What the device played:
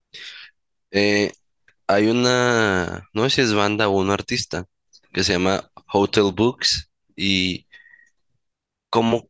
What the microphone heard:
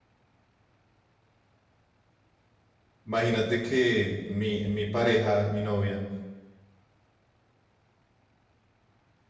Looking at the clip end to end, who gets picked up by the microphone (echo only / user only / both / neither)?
user only